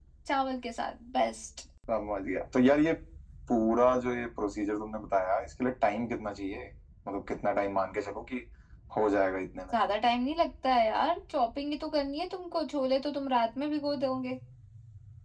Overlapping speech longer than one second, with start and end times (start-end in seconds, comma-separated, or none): none